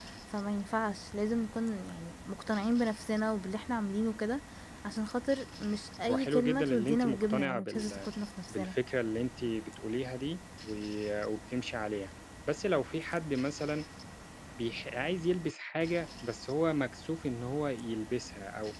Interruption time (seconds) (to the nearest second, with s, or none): 6 s